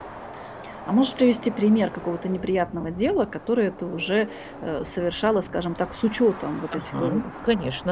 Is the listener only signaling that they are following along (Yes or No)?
No